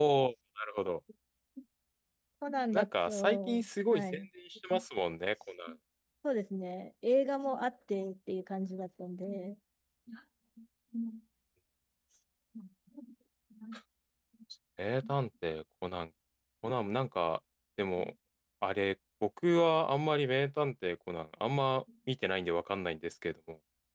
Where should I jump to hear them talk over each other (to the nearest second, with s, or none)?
3 s